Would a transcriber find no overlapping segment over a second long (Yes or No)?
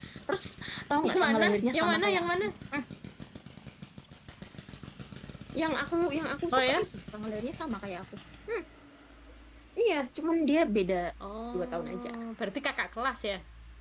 No